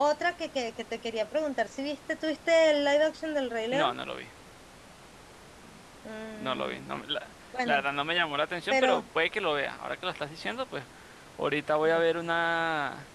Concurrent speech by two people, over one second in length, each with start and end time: none

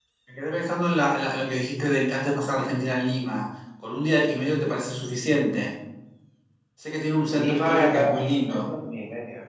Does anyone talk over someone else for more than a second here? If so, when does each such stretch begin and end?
7.3-8.7

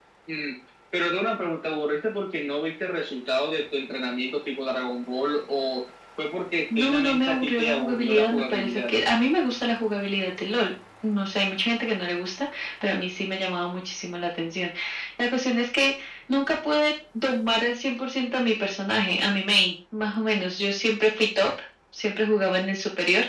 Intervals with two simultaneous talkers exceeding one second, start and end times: 6.8-8.9

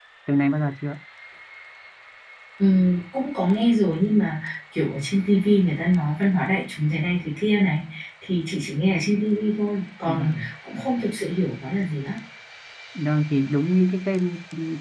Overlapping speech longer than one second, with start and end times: none

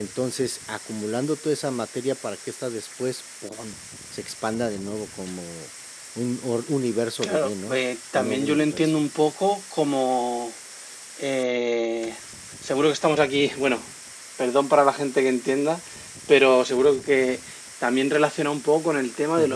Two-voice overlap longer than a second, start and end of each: 7.2-9.0

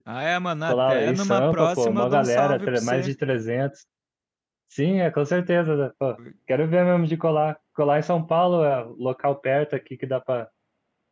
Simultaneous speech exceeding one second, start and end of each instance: 0.7-3.1

